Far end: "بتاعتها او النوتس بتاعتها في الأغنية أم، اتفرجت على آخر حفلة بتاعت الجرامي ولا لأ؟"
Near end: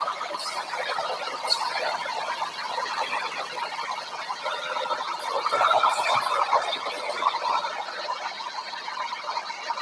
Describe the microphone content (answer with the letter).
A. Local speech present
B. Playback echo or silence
B